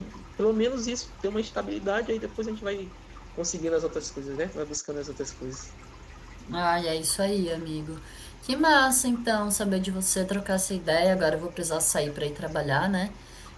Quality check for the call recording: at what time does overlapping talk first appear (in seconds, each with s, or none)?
none